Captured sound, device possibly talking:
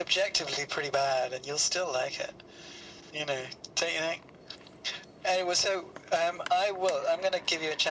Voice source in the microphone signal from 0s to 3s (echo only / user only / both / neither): echo only